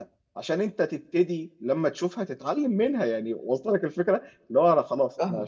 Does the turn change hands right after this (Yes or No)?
No